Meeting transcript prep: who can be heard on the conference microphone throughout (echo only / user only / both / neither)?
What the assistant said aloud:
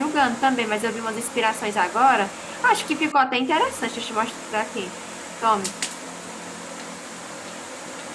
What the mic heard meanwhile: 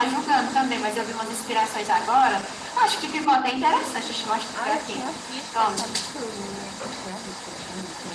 both